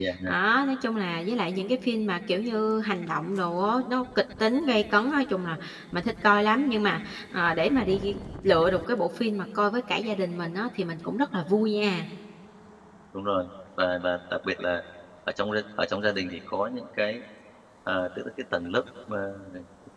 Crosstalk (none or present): none